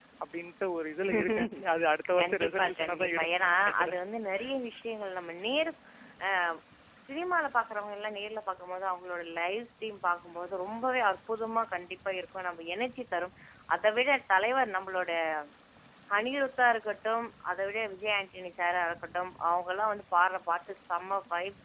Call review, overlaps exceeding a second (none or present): present